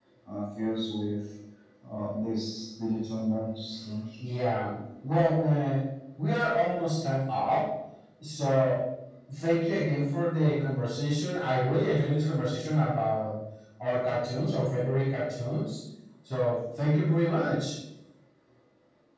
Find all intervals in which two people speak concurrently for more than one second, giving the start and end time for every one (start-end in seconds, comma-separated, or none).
none